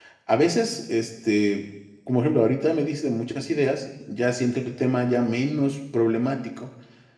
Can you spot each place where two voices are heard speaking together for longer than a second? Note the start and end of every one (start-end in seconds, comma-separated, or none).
none